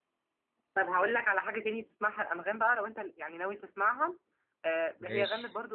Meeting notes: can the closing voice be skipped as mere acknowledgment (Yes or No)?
Yes